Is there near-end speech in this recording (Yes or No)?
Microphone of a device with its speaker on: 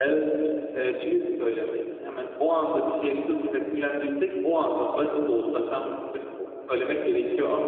No